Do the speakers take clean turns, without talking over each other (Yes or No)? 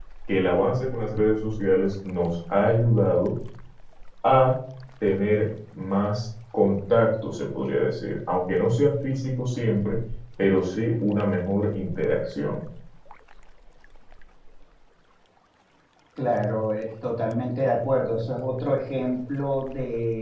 Yes